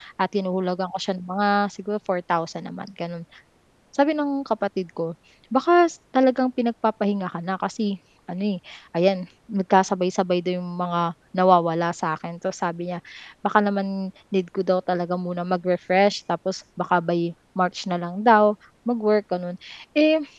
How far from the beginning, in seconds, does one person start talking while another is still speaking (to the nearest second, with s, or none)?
none